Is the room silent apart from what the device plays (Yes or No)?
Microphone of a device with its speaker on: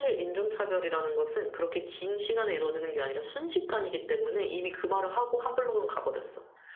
Yes